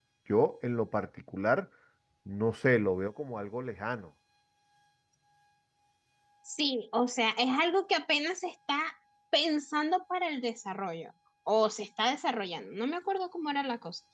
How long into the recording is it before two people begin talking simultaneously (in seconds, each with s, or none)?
none